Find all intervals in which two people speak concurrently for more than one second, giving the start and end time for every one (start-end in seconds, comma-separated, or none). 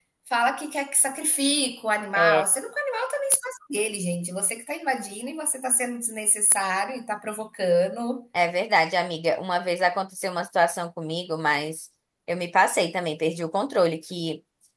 none